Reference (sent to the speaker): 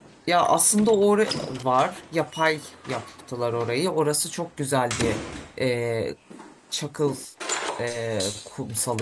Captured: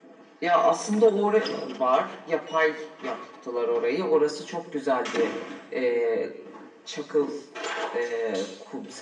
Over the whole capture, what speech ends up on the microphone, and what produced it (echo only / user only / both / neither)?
echo only